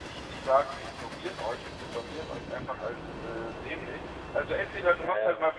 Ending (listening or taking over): listening